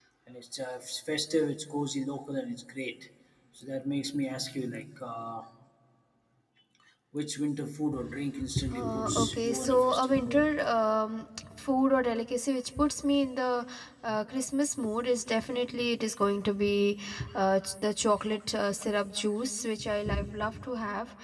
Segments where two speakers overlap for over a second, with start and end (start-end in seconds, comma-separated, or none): 8.7-10.6